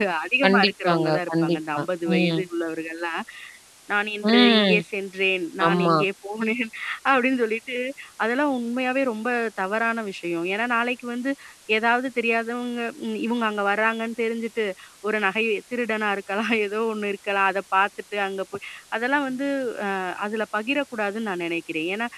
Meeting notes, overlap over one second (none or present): present